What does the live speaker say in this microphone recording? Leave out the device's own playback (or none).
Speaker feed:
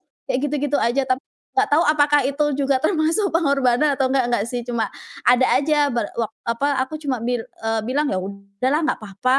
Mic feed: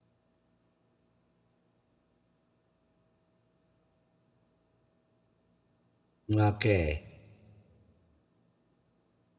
M oke.